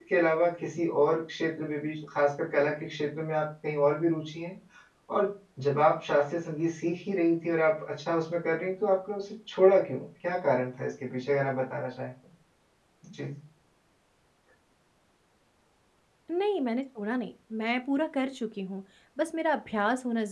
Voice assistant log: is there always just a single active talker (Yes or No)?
Yes